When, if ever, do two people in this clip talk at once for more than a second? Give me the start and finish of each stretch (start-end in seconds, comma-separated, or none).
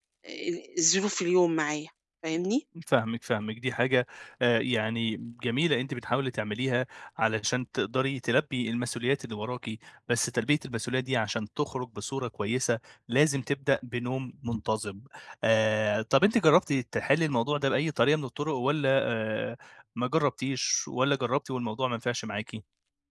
none